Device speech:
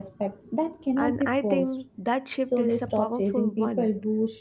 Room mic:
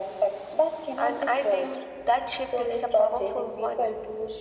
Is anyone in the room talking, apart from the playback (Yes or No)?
No